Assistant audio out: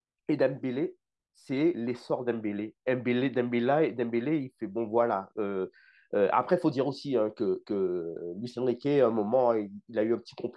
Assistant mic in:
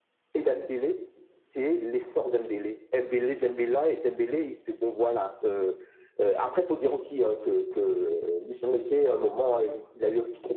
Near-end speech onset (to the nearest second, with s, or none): none